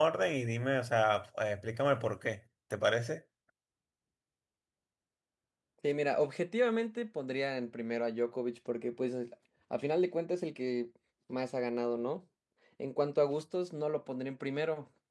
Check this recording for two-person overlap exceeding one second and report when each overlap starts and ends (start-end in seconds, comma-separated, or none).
none